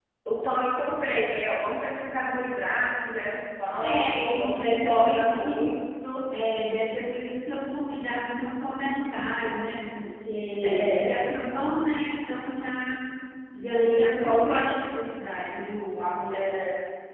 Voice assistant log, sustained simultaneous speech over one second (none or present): present